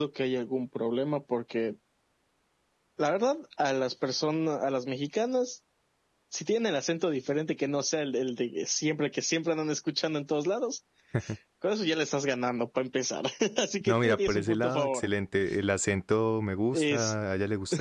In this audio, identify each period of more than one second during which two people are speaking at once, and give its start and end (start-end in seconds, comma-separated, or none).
13.8-15.1